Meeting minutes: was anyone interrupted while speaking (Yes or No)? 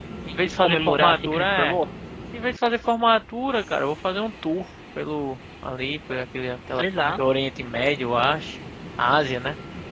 Yes